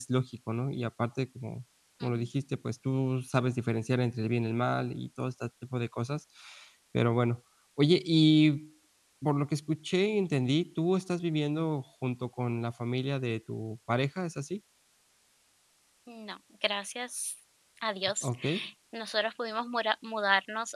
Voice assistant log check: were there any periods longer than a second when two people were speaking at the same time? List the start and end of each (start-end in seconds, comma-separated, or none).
none